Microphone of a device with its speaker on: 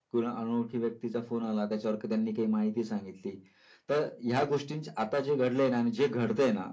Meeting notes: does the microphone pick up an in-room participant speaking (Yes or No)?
No